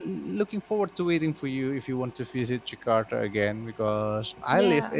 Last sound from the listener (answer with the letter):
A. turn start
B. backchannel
B